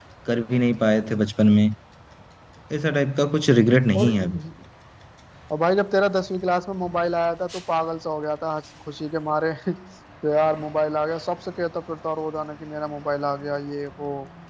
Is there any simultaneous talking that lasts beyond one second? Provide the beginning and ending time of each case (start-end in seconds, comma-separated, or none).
none